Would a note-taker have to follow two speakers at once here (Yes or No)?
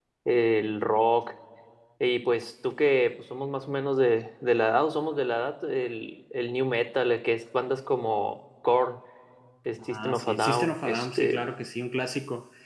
Yes